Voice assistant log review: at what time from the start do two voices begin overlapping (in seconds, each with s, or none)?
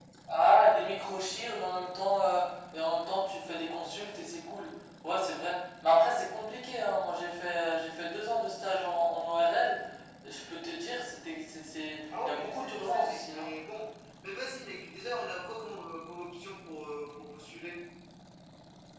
12.1 s